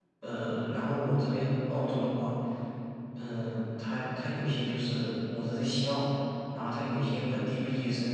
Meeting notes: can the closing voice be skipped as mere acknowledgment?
Yes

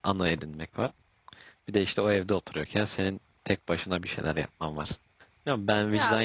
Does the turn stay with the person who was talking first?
Yes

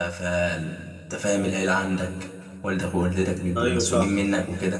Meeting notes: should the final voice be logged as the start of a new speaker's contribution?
No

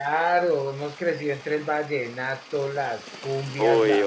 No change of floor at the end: No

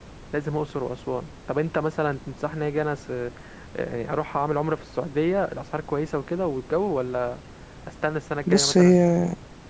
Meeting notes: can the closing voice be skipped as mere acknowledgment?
No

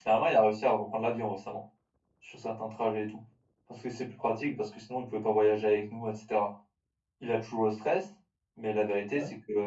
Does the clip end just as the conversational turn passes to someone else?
No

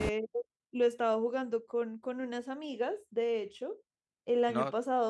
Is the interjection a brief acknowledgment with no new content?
Yes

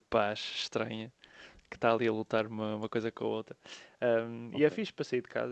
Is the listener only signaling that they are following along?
Yes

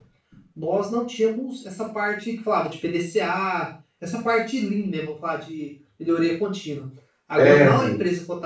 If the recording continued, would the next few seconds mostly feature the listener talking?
No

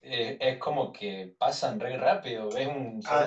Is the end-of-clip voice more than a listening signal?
Yes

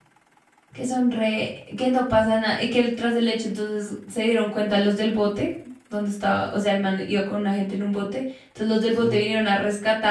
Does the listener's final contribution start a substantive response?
No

